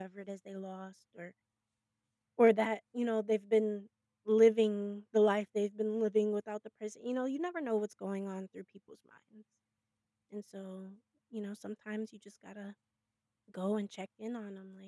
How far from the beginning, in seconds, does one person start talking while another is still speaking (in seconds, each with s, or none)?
none